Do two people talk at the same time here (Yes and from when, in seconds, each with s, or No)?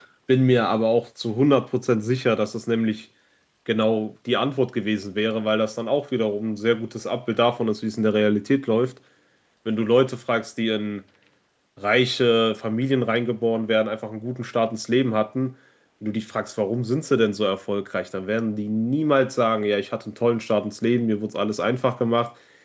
No